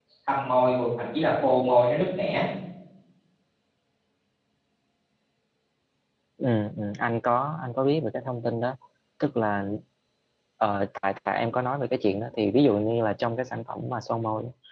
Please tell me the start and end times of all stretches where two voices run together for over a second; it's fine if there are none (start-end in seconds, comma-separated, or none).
none